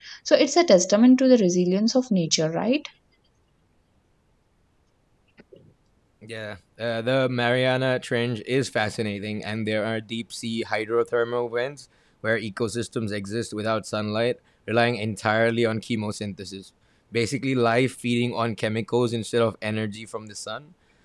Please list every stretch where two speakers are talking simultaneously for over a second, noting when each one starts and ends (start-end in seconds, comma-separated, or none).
none